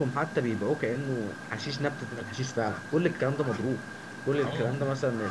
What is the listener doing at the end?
listening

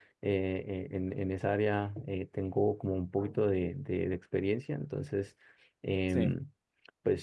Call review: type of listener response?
listening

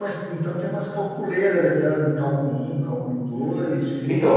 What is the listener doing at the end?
taking over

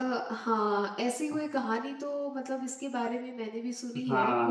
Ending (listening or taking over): taking over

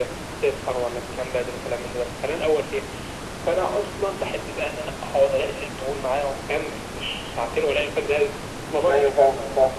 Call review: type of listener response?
taking over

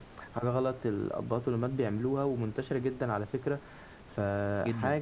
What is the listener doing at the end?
listening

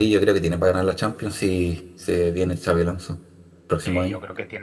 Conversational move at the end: taking over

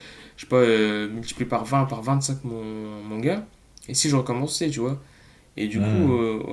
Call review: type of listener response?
listening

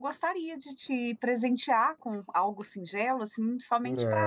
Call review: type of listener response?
taking over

